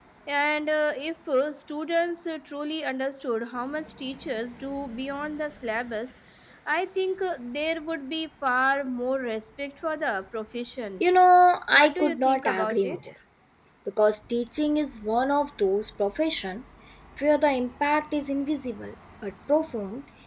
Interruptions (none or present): present